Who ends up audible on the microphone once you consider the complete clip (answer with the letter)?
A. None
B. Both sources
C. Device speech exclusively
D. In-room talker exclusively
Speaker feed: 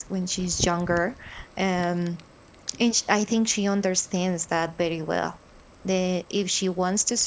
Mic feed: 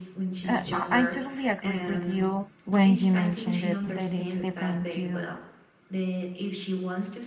B